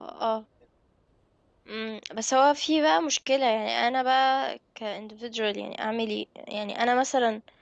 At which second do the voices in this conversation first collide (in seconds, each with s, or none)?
none